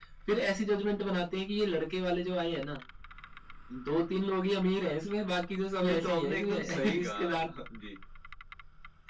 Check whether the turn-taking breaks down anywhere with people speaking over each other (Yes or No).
Yes